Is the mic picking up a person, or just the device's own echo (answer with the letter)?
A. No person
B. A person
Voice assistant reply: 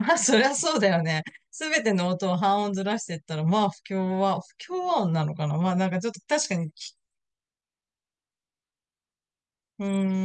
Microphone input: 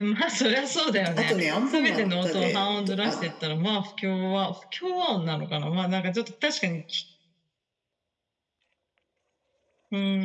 B